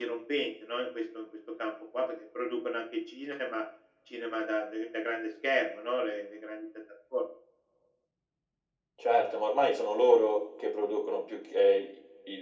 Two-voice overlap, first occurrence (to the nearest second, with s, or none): none